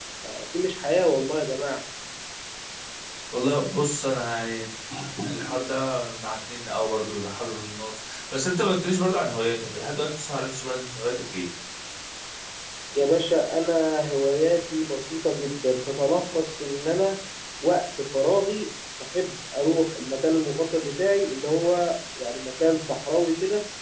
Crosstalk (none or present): none